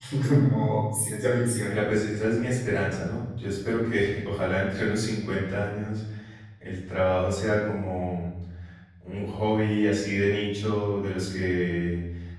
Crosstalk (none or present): none